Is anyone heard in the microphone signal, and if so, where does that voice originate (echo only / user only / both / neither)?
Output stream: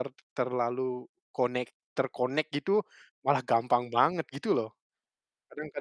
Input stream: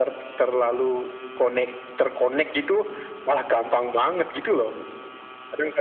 echo only